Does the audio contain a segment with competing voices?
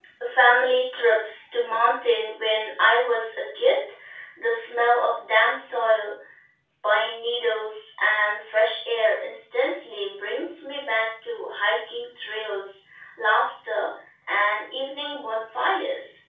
No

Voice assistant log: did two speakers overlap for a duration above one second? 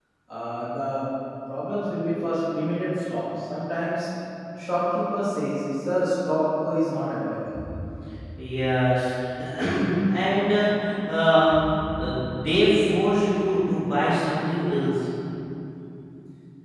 No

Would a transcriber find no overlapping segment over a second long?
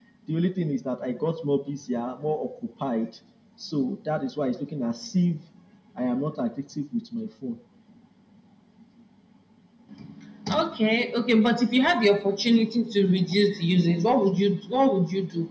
Yes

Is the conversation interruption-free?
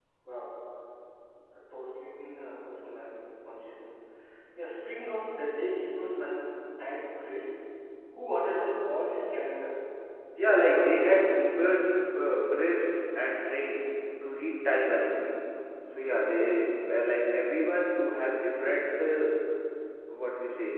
No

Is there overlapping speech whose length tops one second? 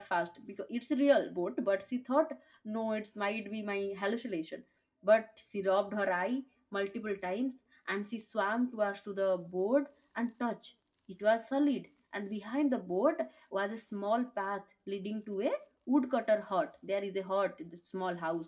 No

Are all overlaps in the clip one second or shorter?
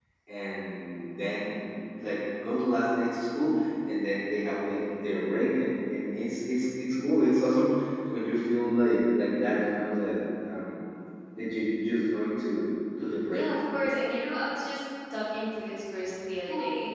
Yes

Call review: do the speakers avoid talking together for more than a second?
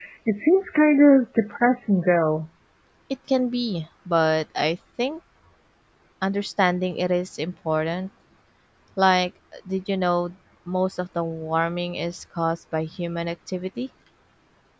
Yes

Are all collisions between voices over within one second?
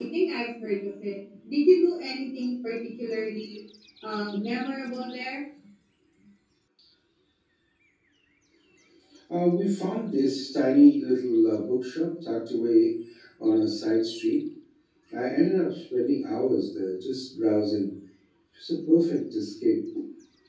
Yes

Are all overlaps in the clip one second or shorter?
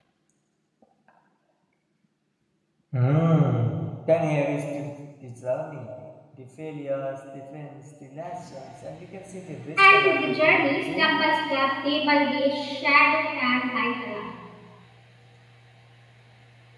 No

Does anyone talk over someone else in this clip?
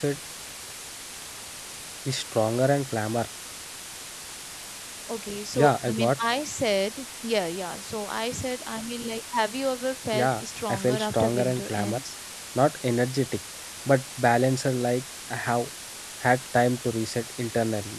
Yes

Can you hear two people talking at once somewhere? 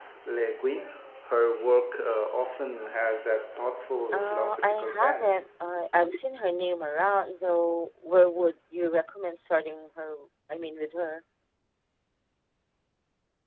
Yes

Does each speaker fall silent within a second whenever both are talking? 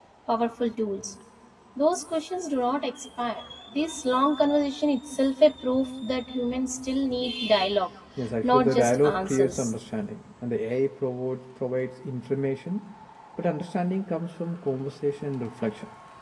No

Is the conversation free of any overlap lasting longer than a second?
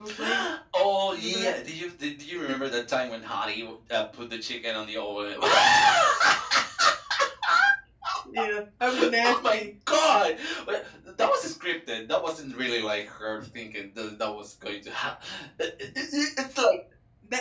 Yes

